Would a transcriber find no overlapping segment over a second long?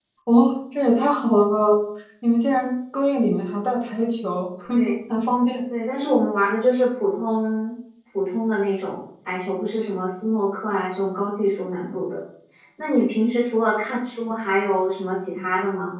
Yes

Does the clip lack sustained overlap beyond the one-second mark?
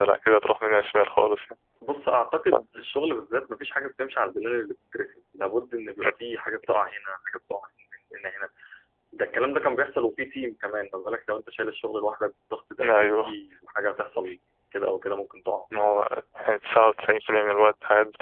Yes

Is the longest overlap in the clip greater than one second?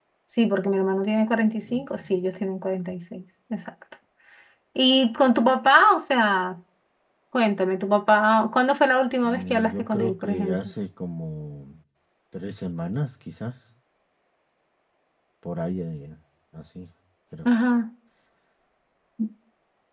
Yes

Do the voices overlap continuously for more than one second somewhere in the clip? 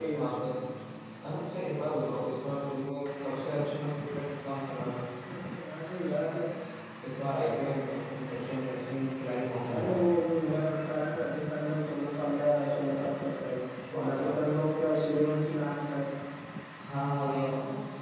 No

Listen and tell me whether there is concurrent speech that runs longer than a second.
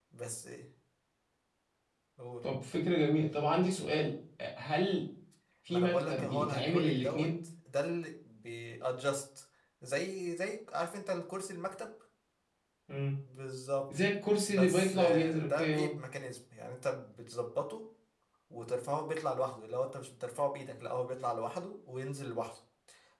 Yes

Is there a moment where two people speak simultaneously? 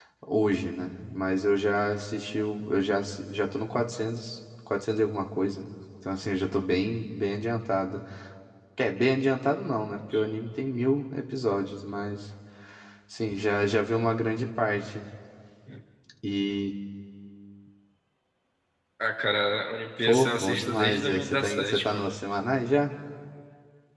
Yes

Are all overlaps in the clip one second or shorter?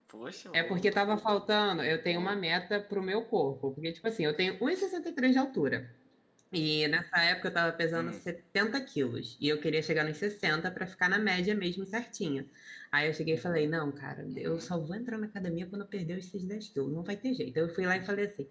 Yes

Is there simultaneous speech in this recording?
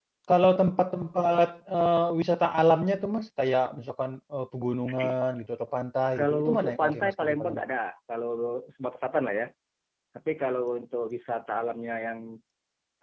Yes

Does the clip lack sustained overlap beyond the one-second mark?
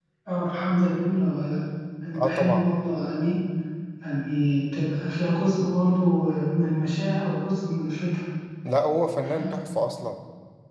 Yes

